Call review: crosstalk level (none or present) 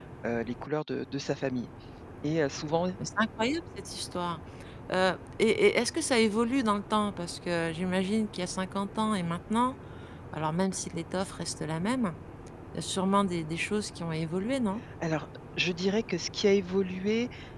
none